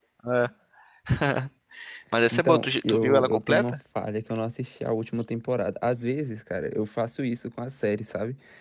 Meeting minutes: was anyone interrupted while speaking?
Yes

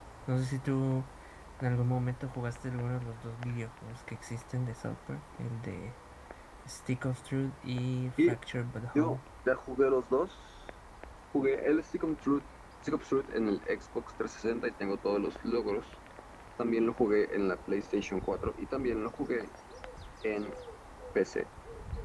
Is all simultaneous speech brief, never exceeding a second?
Yes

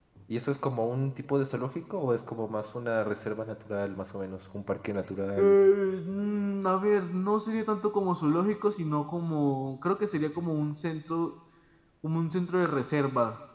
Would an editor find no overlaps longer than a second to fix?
Yes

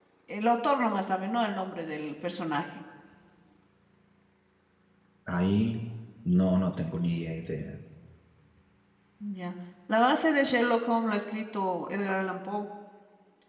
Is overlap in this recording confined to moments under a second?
Yes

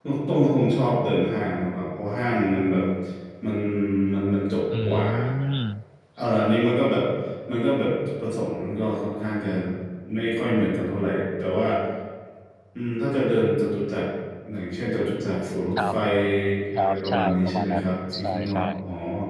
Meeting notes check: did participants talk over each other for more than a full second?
Yes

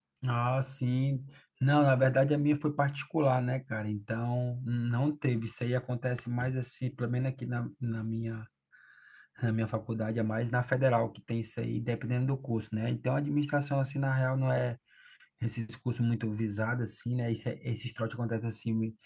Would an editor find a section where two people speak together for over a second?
No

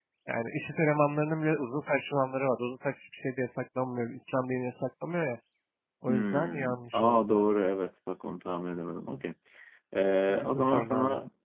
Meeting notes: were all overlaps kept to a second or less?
No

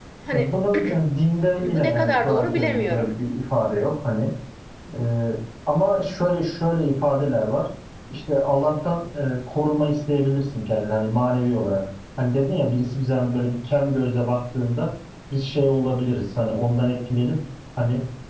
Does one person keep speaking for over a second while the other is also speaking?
Yes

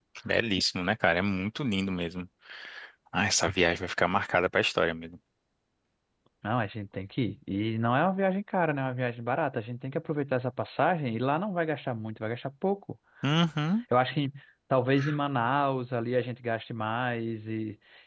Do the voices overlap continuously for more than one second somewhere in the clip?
No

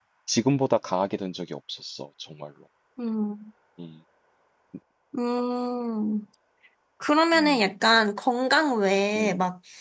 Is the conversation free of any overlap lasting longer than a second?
Yes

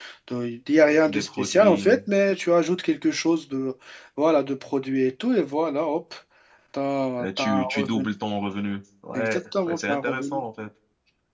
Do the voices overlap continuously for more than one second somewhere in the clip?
Yes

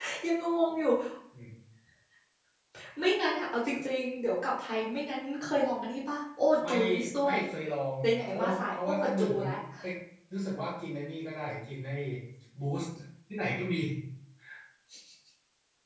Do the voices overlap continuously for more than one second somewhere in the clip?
Yes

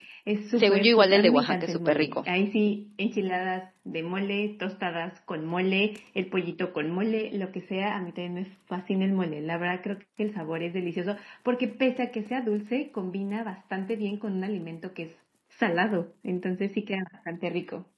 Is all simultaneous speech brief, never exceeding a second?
No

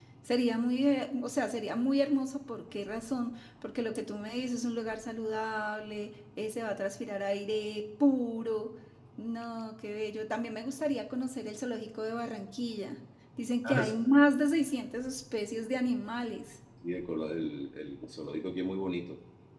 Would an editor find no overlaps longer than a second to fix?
Yes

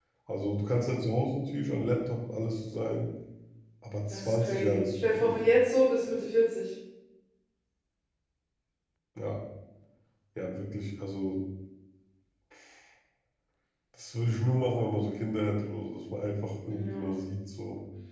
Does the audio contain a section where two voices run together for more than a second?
Yes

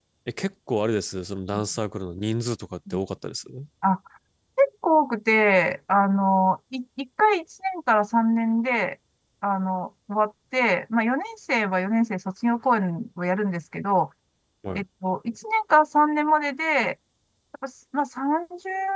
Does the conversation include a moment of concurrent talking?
No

